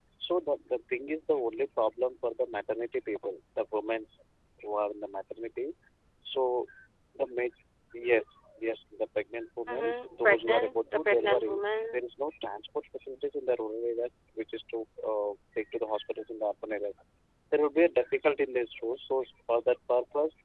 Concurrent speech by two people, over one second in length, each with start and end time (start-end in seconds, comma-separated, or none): 10.2-11.6